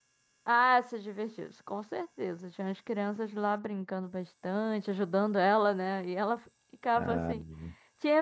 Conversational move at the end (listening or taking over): listening